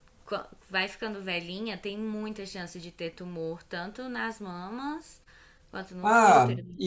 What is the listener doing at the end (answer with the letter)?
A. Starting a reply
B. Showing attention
A